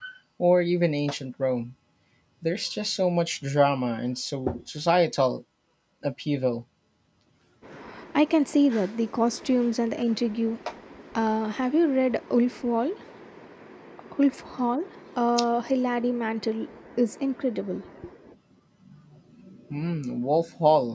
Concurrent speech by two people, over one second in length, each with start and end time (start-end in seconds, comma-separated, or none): none